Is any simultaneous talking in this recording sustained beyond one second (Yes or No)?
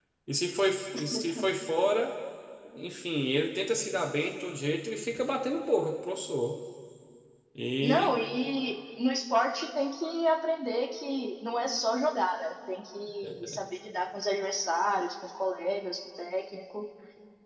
No